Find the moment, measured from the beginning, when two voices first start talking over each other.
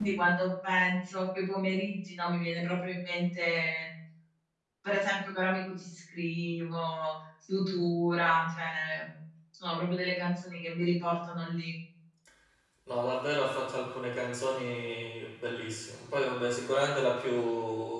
none

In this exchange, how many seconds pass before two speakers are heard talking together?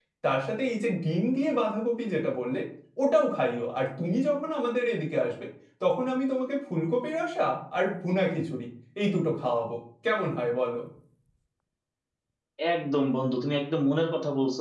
none

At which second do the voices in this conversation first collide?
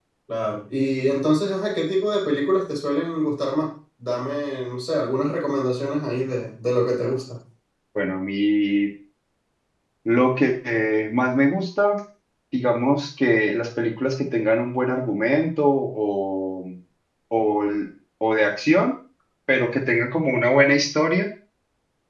none

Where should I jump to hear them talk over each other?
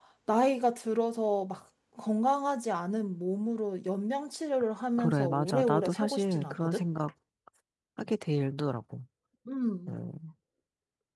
5.0 s

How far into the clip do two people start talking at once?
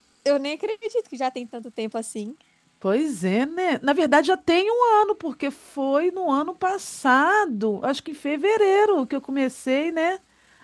none

